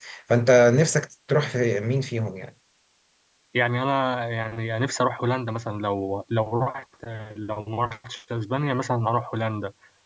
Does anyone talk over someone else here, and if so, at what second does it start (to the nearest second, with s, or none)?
none